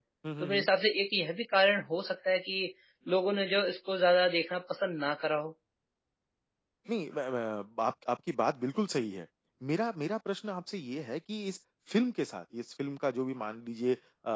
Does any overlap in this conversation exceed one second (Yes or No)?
No